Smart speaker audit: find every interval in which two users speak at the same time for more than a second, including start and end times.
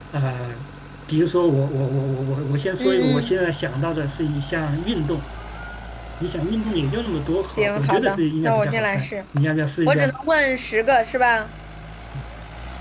7.5-9.1

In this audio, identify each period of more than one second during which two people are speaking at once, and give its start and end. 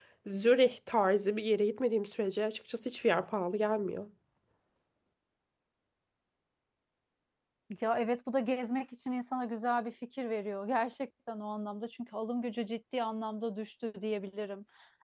none

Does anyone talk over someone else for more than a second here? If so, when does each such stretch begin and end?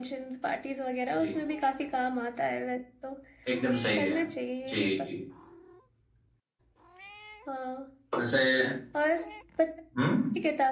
none

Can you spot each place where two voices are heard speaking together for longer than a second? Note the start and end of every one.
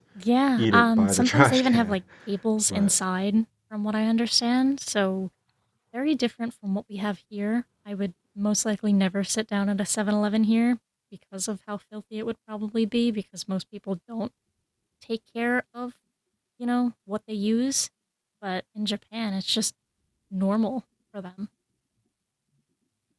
0.6-2.0

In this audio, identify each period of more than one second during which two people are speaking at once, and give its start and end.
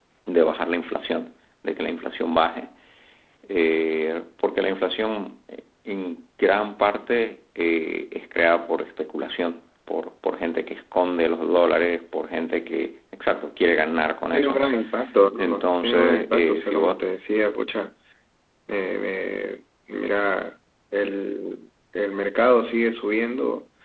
15.4-17.0

